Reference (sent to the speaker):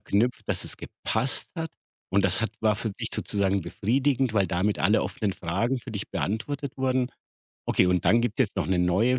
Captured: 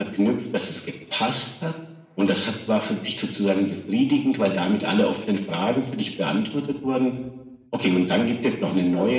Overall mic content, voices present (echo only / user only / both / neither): echo only